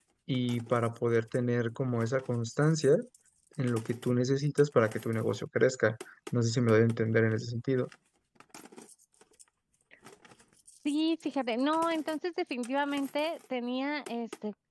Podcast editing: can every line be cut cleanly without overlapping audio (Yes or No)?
Yes